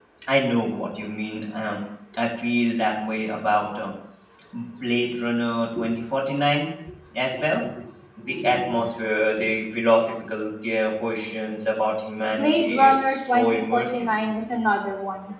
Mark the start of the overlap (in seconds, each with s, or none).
12.3 s